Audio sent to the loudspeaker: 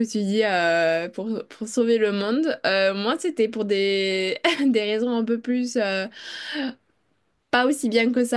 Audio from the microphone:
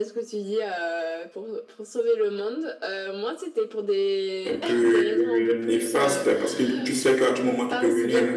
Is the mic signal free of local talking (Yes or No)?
No